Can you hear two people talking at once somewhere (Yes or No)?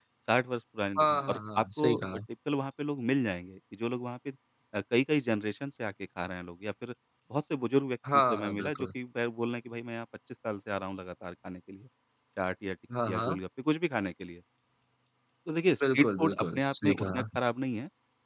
Yes